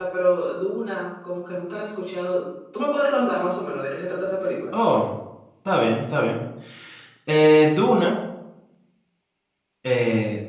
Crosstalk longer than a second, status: none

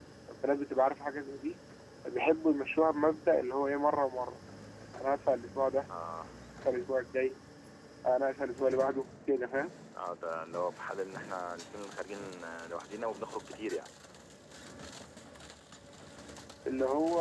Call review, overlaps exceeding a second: none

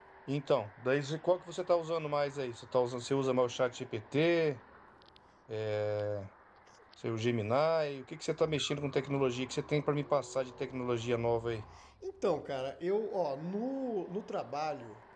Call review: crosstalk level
none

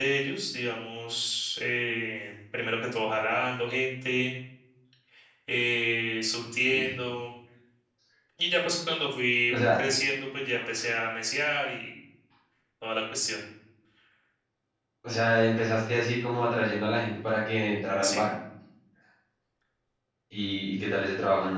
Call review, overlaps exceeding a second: none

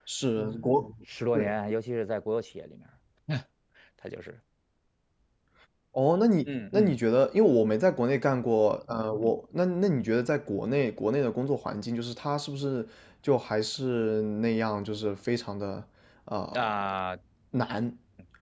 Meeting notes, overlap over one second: none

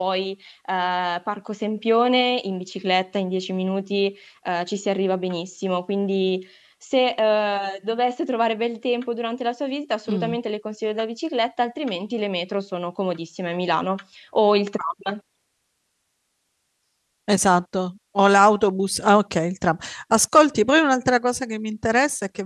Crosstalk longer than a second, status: none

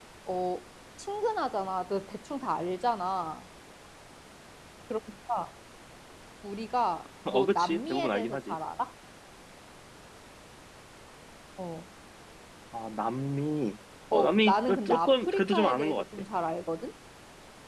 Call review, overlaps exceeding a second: present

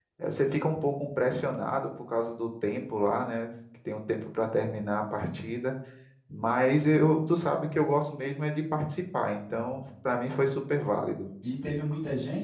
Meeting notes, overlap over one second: none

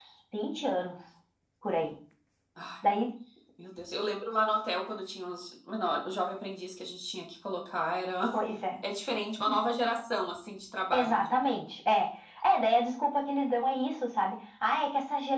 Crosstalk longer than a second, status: none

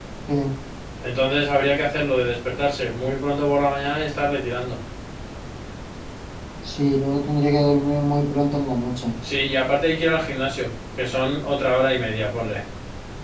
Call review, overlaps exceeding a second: none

